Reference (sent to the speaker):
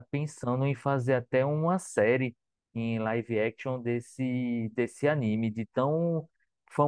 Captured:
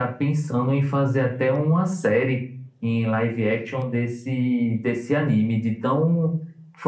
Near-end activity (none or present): none